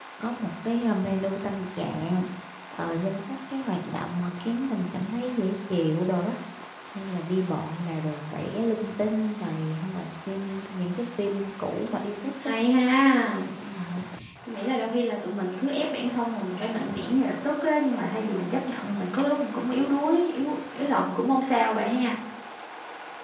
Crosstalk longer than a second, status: none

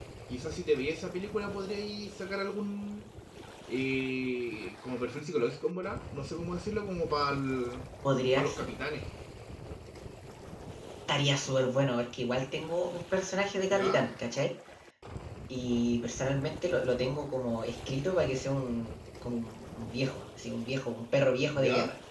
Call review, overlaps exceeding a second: none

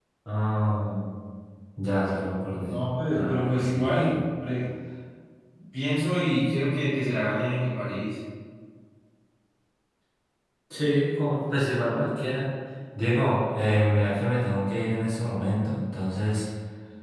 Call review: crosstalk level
present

